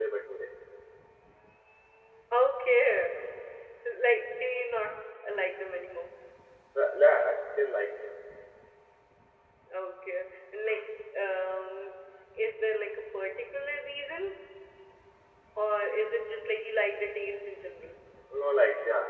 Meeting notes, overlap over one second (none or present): none